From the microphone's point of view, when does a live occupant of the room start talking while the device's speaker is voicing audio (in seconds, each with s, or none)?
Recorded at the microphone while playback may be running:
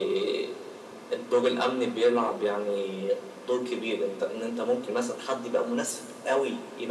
none